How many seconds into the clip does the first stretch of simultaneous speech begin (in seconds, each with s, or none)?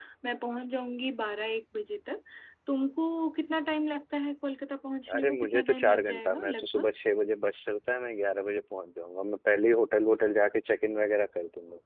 5.1 s